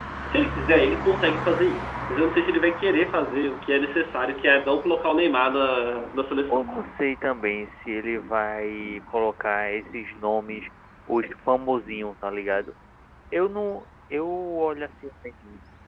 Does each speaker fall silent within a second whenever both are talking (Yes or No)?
Yes